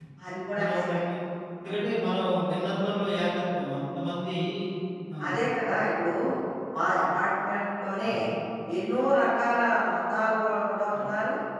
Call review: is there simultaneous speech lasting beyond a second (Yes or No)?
No